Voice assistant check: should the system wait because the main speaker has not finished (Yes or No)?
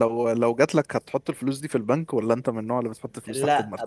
No